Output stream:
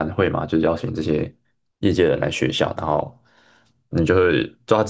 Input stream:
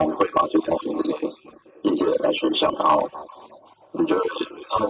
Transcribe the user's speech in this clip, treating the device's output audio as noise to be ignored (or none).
none